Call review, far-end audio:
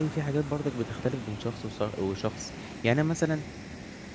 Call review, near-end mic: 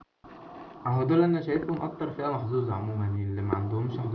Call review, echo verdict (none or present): none